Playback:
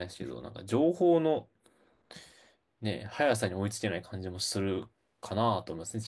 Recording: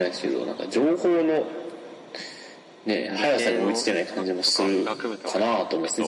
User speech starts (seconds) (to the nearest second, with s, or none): 3 s